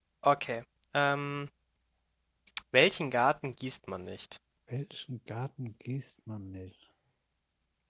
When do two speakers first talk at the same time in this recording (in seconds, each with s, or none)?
none